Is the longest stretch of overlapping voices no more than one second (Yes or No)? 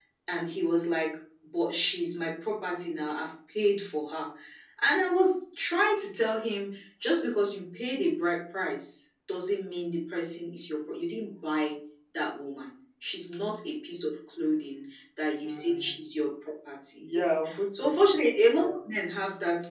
Yes